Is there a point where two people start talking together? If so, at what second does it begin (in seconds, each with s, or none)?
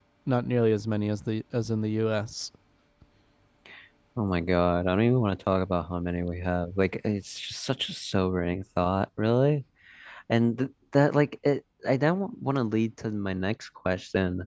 none